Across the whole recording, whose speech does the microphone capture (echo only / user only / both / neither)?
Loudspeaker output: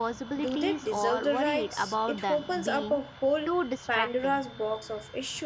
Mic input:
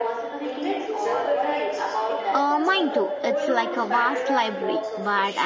both